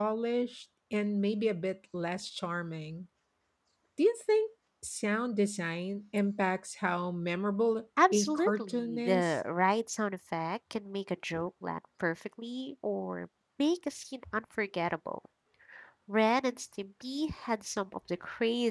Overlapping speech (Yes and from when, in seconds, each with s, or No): Yes, from 8.0 s